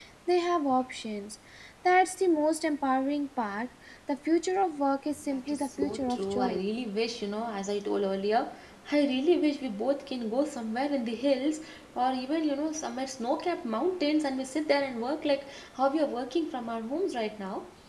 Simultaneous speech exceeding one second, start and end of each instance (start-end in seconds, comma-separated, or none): 5.3-6.6